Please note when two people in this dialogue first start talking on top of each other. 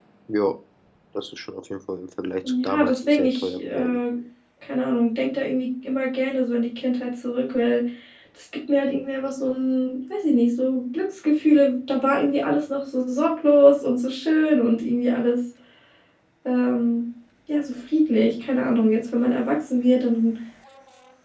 2.4 s

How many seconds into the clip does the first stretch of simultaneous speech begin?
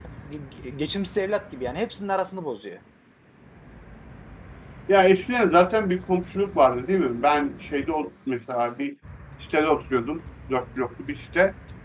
none

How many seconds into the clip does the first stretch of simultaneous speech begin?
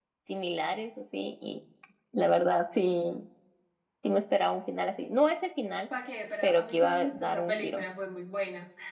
6.4 s

